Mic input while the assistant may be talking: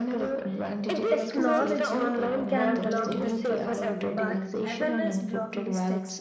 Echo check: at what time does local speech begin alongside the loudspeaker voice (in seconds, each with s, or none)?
1.1 s